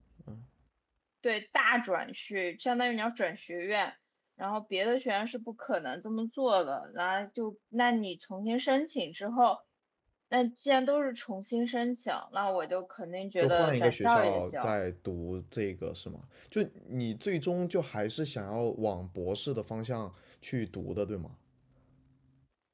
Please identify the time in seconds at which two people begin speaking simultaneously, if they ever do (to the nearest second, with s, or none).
13 s